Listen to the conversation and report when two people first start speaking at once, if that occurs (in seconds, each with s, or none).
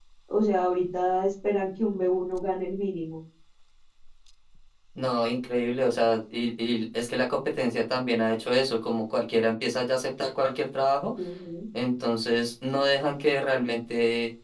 none